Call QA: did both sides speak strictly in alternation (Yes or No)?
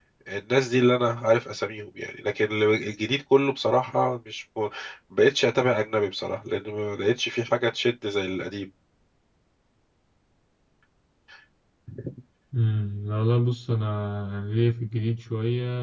Yes